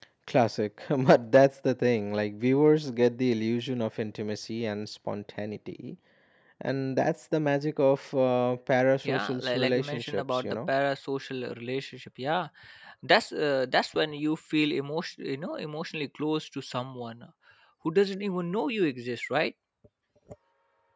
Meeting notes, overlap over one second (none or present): present